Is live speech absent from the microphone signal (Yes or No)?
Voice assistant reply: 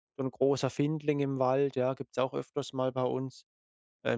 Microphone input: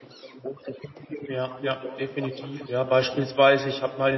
No